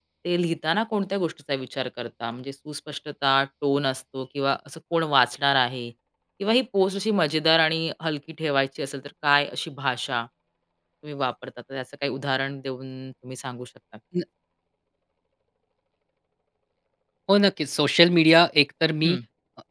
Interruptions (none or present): none